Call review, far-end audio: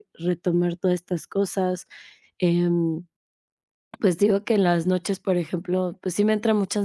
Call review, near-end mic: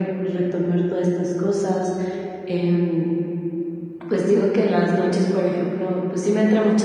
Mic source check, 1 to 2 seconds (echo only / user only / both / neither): echo only